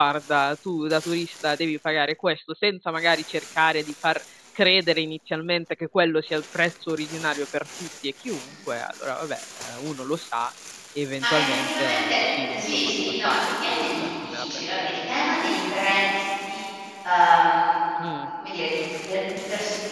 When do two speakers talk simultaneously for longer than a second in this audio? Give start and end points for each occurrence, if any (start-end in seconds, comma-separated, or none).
11.2-14.6